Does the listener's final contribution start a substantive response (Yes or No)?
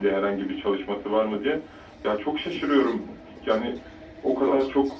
No